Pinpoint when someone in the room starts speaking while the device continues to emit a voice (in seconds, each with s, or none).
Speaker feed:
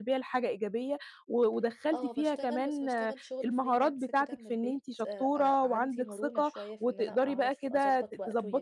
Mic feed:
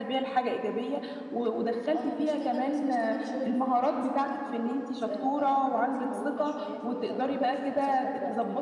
none